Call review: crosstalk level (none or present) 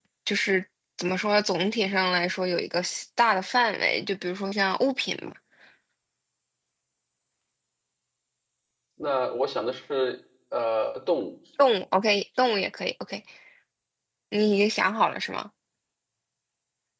none